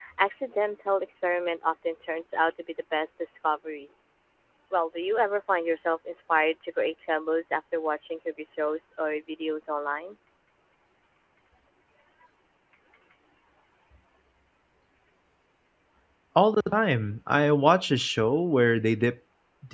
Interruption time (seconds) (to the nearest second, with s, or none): none